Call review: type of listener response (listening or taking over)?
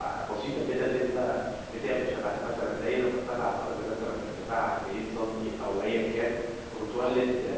listening